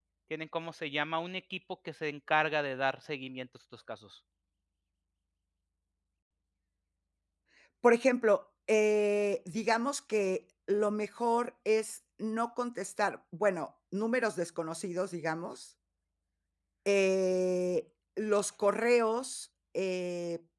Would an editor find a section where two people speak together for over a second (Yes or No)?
No